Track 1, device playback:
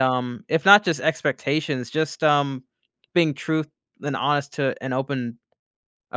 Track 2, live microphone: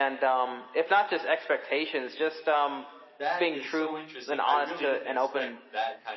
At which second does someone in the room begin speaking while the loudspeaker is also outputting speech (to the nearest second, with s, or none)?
3 s